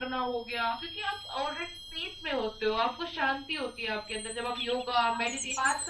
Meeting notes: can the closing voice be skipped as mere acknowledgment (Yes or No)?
No